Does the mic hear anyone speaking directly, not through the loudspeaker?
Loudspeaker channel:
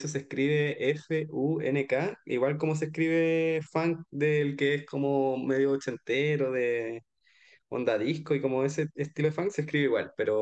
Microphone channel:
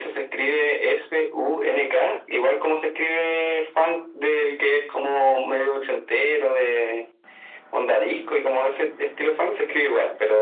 No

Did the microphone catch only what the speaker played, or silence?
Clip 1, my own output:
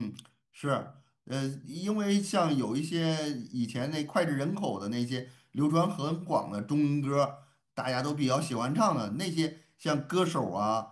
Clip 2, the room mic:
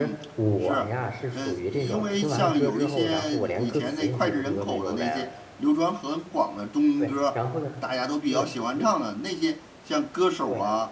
No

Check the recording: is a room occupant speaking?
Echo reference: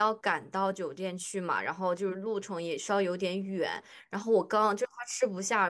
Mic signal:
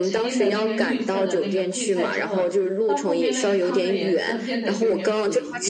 Yes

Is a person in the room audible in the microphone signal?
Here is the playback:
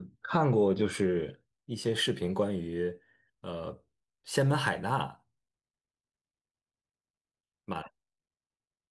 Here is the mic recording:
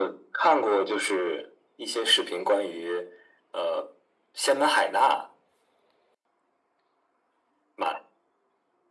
No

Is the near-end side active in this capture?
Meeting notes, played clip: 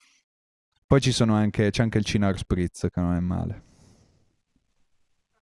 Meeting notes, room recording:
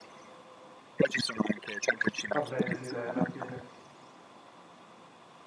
Yes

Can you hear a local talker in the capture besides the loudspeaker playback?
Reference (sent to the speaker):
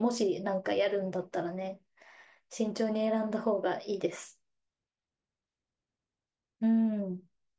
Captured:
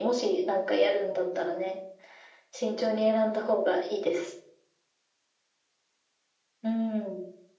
No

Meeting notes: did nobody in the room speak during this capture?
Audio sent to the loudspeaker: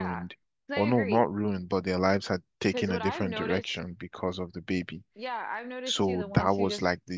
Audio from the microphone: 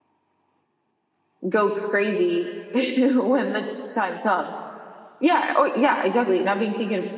No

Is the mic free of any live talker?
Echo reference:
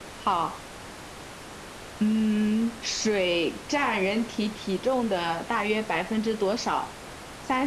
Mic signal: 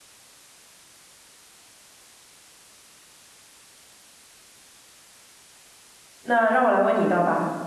No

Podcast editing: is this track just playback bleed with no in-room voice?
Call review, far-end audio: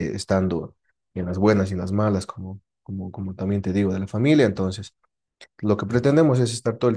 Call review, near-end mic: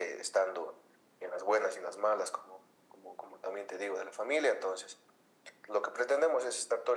Yes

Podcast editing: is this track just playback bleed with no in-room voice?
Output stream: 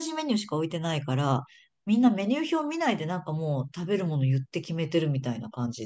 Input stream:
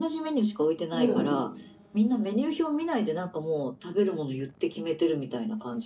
No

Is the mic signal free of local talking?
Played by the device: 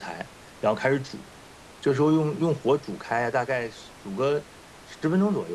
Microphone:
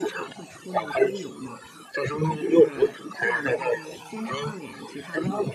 No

